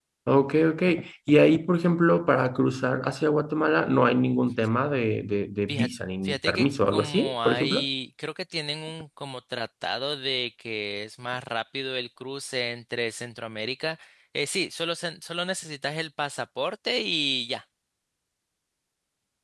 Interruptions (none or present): present